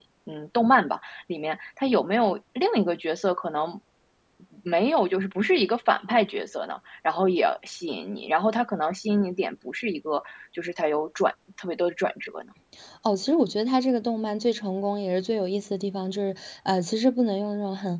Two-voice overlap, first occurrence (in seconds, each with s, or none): none